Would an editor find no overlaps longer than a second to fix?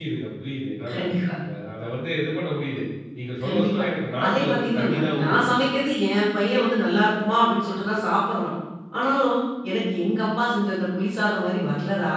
No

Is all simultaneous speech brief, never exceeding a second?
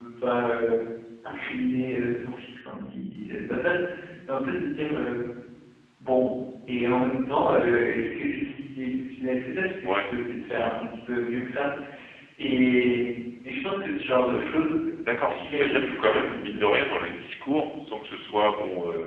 No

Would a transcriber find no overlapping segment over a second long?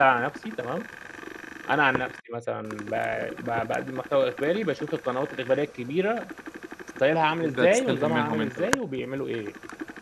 No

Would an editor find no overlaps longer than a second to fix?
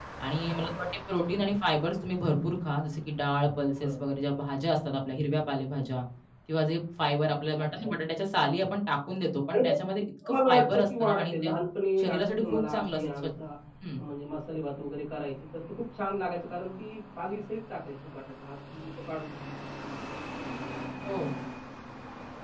No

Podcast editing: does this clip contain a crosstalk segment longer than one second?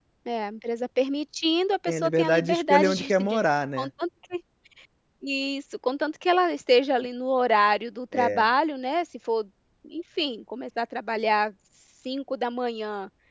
Yes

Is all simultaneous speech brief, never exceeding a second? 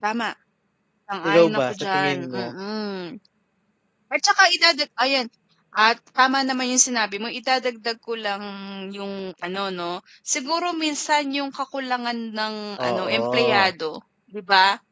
No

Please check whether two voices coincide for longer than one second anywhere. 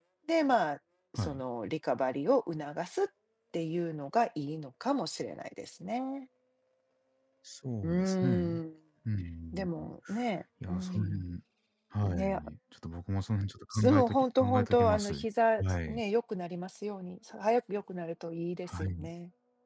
Yes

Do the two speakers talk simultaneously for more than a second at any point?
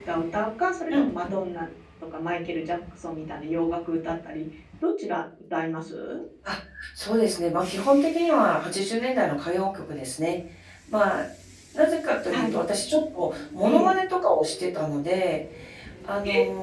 No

